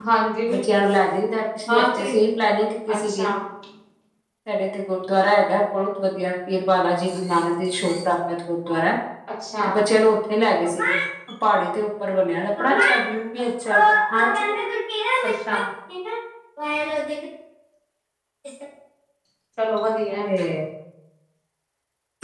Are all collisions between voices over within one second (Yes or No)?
Yes